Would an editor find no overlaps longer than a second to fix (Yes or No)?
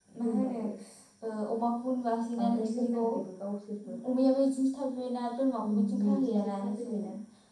No